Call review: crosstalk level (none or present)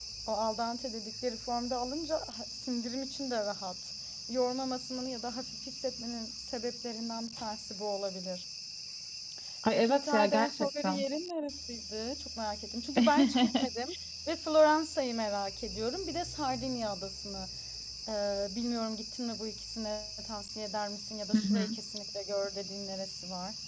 present